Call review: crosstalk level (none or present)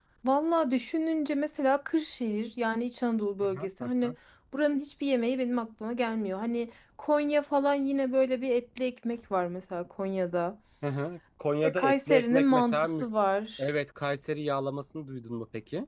present